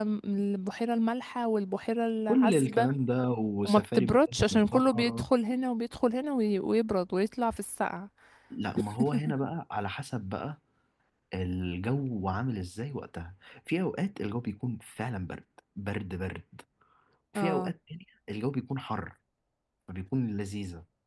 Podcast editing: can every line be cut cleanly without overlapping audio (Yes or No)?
No